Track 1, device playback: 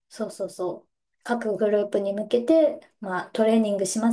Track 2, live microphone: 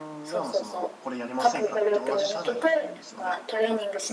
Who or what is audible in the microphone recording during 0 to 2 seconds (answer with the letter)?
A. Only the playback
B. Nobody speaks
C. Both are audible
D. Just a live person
C